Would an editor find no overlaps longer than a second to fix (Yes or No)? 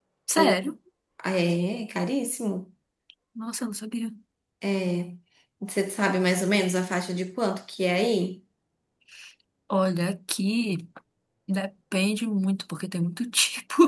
Yes